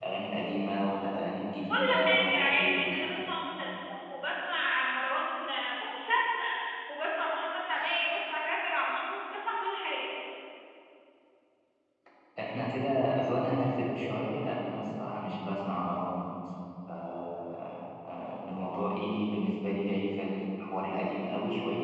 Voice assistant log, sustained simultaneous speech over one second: present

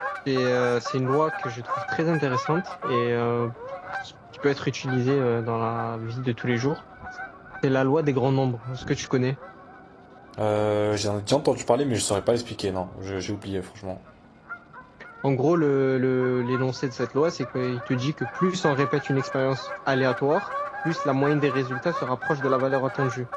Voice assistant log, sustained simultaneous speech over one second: none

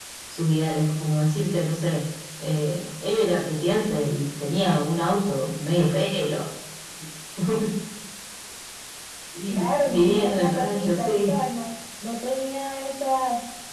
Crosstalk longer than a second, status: present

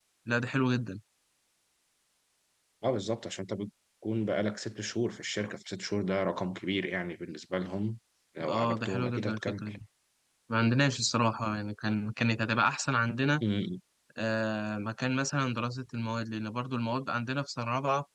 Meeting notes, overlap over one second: present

